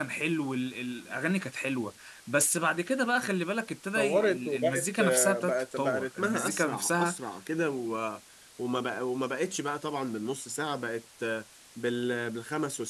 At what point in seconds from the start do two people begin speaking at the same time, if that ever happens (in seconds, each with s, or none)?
4.0 s